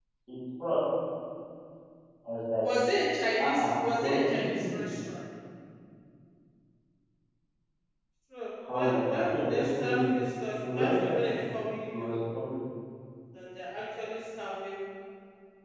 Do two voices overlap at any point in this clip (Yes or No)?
Yes